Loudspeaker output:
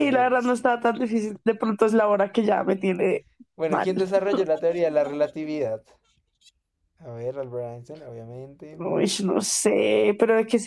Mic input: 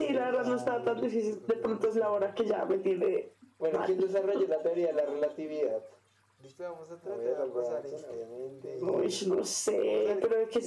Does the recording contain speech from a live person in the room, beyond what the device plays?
Yes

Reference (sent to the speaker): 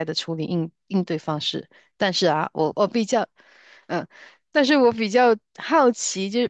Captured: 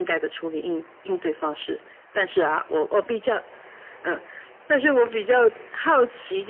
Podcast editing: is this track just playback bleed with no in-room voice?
Yes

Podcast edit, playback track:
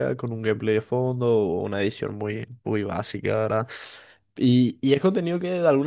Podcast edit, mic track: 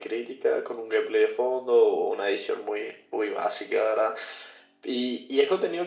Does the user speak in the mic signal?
No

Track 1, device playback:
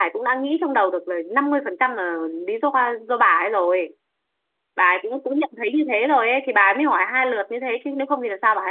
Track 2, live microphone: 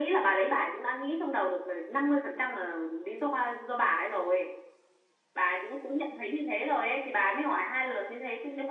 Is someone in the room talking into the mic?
No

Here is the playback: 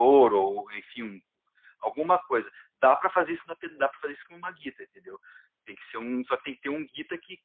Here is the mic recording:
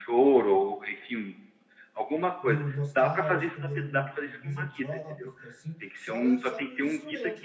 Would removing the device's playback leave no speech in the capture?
No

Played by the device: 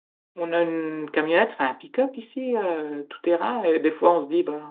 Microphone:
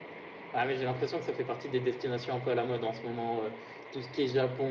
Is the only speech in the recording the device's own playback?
No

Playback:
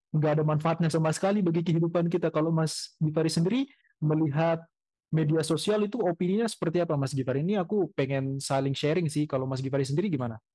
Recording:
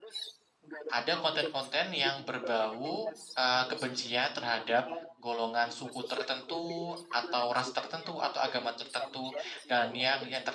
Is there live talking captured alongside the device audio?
Yes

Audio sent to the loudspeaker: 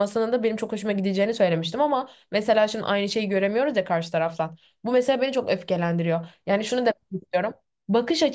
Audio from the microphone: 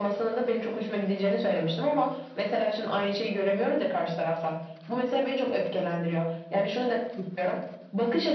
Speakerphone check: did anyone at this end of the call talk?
No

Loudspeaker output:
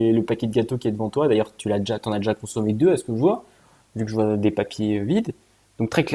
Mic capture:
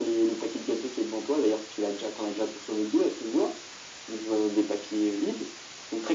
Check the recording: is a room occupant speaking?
No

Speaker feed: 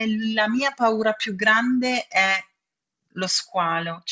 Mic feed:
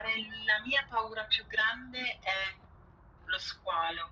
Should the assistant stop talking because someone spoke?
No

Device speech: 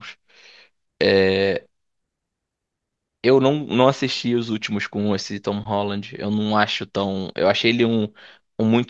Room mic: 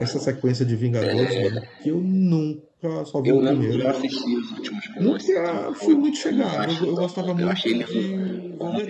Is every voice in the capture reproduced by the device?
No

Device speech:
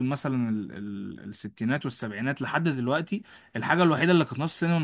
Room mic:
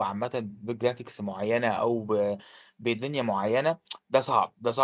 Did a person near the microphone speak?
Yes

